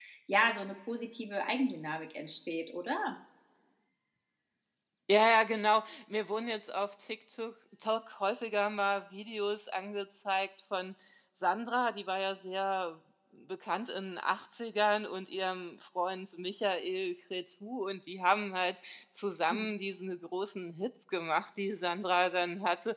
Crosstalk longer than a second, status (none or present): none